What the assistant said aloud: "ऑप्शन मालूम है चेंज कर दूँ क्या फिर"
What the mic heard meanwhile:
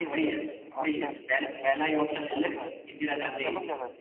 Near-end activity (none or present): present